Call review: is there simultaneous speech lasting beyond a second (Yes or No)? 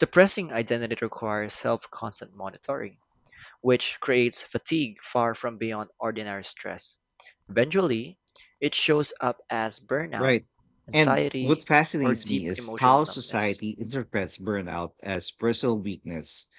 Yes